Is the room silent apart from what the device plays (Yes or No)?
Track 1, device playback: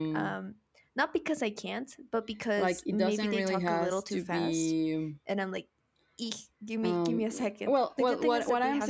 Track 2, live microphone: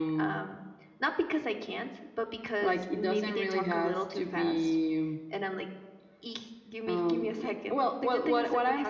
Yes